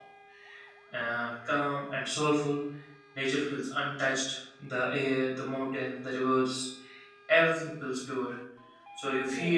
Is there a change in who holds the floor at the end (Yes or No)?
No